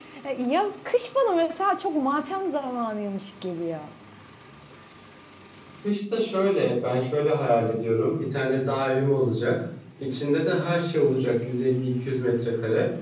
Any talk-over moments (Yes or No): No